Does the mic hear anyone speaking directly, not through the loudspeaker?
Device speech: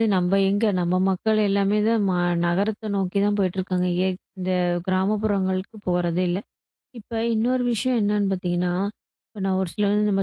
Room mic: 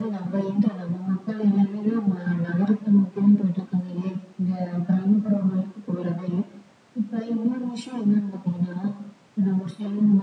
No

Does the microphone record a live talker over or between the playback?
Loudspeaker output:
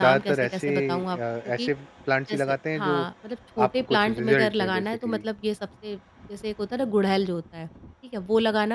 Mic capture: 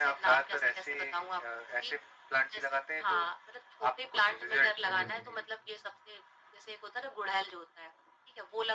Yes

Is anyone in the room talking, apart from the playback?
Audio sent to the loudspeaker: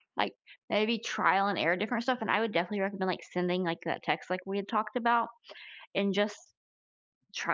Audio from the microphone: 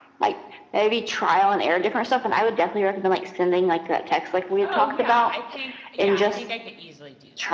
Yes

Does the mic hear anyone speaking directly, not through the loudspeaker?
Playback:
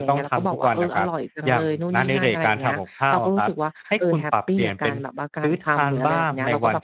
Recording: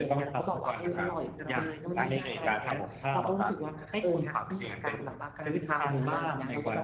No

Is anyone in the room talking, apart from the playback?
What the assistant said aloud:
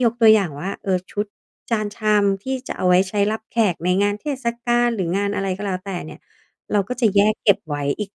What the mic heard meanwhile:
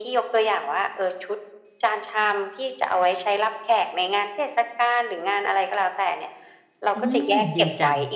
Yes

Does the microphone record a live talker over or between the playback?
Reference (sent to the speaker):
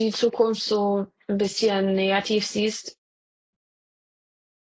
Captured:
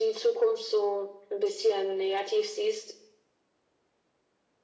No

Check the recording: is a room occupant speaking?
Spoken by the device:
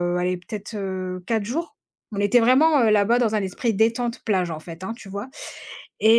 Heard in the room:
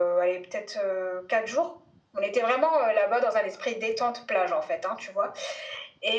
No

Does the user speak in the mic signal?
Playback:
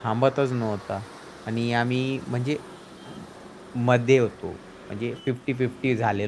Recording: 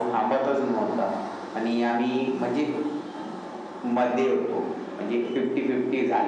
No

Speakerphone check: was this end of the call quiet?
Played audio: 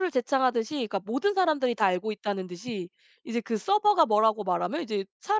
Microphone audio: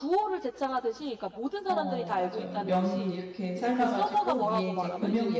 No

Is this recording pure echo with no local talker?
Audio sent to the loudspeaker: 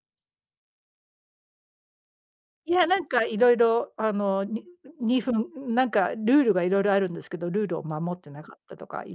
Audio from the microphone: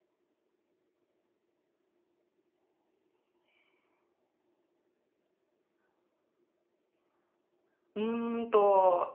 No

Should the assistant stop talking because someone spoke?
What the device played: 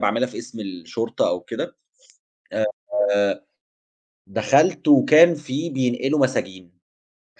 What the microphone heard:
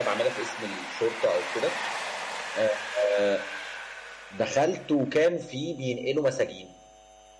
No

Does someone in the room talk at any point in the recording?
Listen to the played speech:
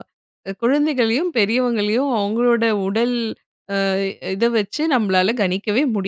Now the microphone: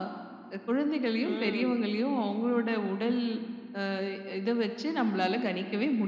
Yes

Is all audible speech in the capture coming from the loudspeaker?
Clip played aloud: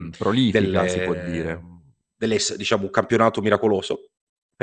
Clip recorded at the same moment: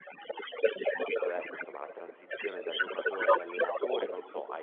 No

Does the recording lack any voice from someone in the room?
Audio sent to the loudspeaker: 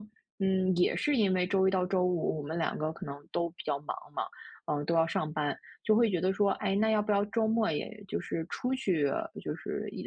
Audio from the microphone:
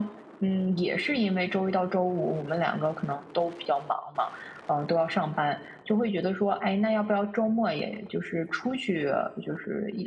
Yes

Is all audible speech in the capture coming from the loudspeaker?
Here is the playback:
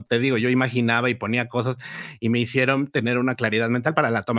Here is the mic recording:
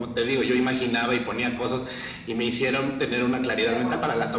No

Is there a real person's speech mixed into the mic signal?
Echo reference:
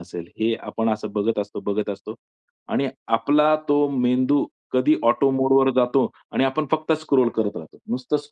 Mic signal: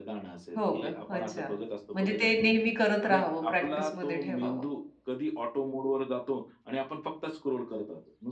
Yes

